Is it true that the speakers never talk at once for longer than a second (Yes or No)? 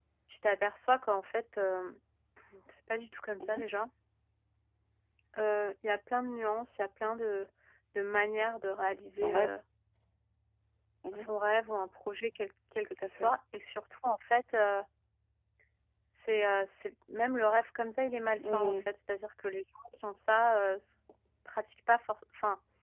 Yes